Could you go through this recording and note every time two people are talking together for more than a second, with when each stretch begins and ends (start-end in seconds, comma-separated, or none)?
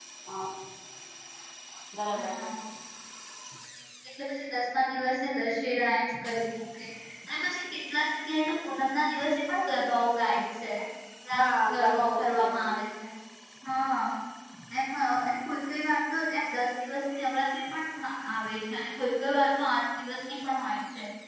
11.4-12.7